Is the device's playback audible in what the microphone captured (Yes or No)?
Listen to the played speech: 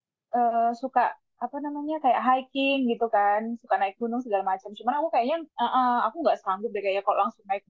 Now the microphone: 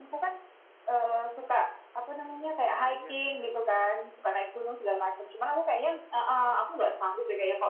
Yes